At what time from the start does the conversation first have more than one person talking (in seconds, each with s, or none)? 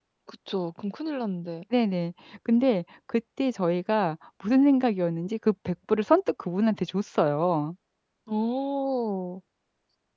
none